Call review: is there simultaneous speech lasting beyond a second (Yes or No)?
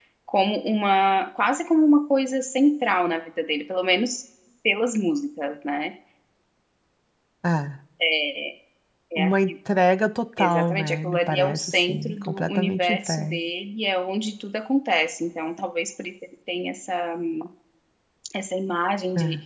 Yes